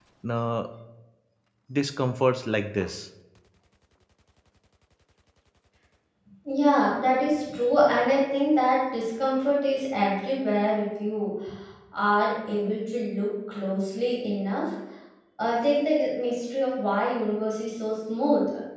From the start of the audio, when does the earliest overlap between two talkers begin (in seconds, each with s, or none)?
none